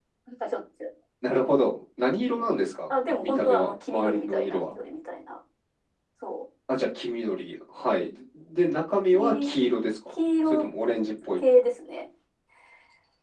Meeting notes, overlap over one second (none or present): present